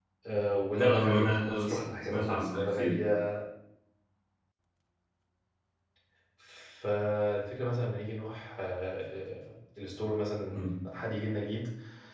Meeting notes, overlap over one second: present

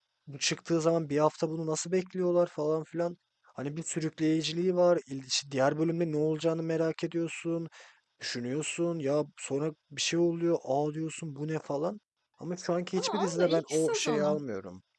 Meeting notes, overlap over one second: present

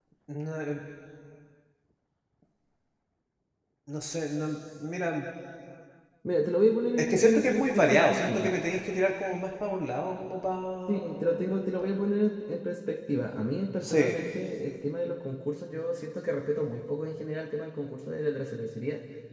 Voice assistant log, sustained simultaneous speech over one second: present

